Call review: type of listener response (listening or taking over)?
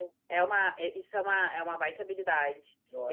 listening